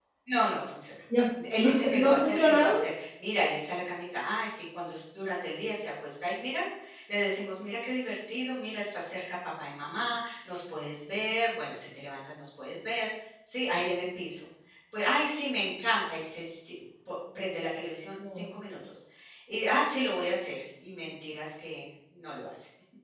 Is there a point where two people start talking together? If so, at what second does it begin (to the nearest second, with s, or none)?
2 s